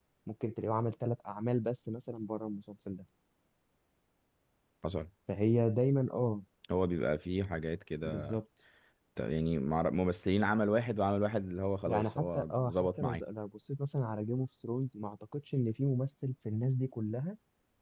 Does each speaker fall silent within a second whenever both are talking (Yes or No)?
No